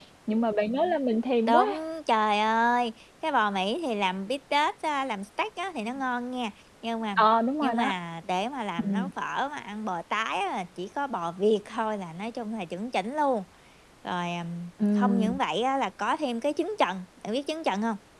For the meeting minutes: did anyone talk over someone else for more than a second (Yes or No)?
No